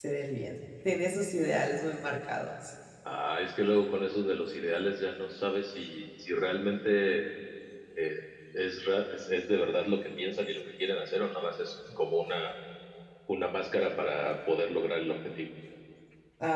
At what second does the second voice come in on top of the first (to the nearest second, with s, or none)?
none